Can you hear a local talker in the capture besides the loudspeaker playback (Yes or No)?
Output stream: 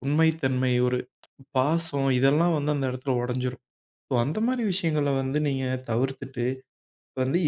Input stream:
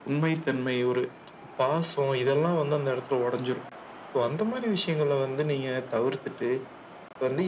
No